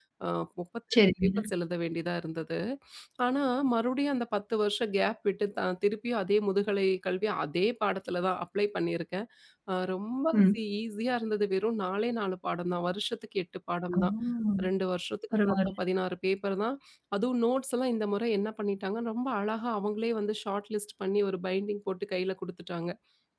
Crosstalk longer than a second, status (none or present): none